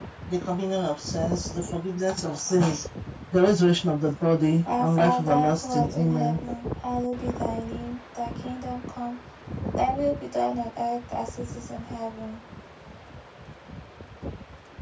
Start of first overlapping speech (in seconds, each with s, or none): 4.7 s